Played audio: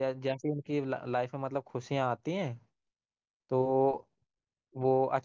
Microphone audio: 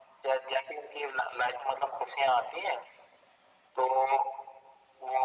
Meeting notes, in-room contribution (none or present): none